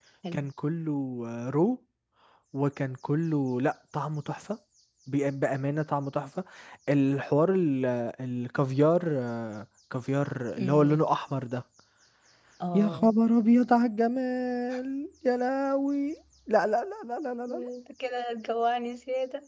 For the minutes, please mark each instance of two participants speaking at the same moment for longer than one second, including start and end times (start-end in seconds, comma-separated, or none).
none